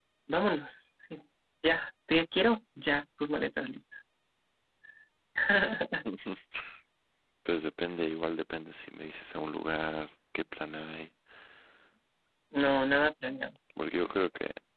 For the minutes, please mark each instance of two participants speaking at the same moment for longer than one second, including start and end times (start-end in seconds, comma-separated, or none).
none